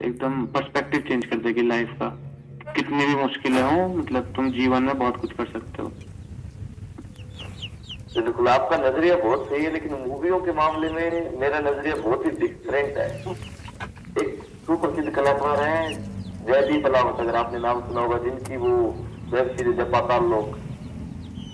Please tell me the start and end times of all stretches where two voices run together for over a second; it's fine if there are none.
none

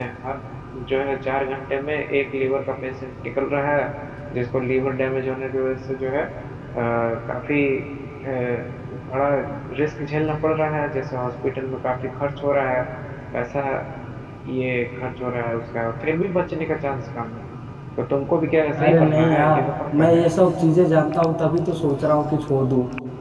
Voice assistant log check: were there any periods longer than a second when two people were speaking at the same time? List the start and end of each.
18.8-20.2

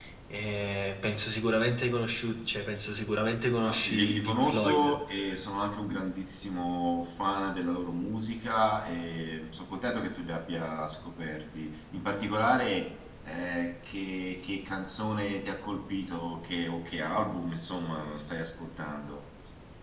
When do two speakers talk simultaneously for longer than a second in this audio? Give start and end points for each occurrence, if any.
3.6-5.0

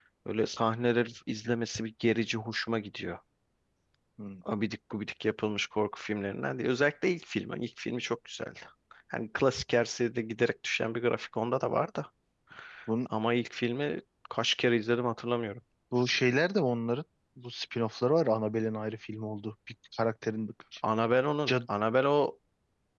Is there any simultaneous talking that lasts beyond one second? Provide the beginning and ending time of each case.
none

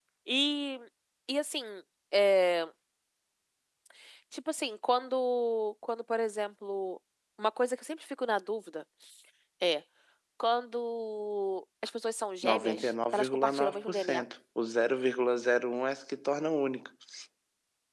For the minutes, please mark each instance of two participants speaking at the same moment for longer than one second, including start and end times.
12.5-14.2

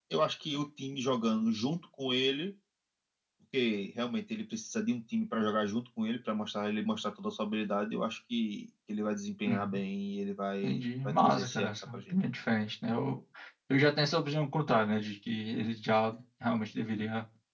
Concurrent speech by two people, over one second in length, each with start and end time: 10.6-12.1

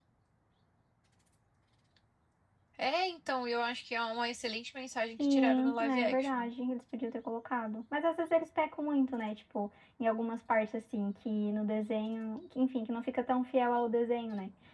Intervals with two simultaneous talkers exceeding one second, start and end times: 5.2-6.5

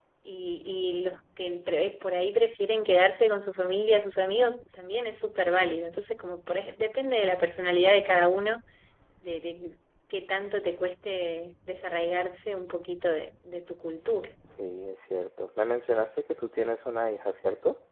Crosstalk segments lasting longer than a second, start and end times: none

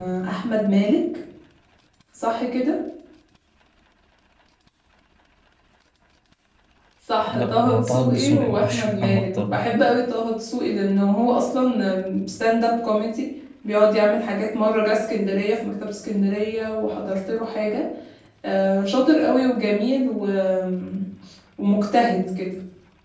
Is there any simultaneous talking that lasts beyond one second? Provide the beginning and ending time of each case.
7.3-9.6

